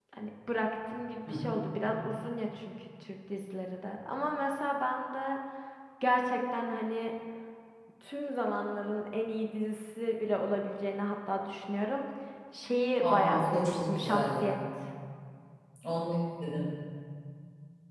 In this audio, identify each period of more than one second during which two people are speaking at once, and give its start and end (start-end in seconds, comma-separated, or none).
13.0-14.4